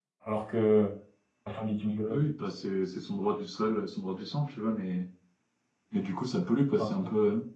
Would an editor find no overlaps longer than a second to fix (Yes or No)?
Yes